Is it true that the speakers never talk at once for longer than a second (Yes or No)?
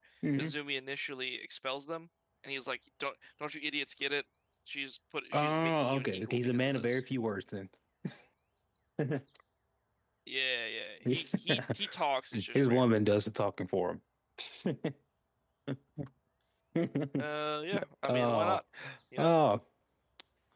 No